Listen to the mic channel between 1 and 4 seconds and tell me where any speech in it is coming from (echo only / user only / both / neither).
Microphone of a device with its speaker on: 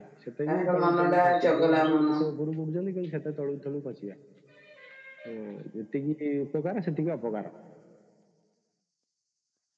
both